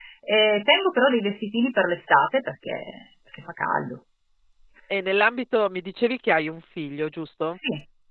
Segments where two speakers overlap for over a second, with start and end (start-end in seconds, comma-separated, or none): none